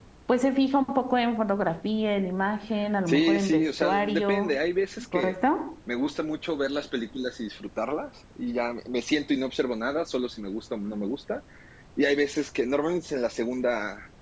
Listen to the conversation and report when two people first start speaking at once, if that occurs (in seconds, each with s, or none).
3.1 s